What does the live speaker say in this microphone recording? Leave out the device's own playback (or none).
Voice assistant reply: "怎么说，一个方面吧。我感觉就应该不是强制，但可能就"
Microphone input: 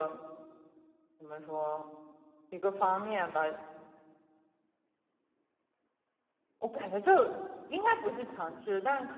none